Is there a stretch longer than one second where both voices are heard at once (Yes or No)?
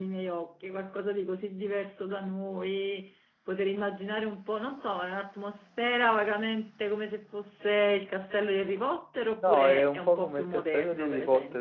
Yes